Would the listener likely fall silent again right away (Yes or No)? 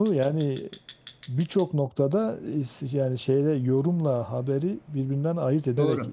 No